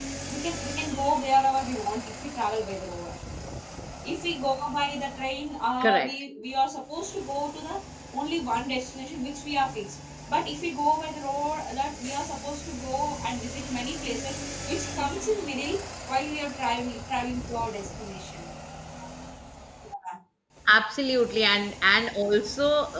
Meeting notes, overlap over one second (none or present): none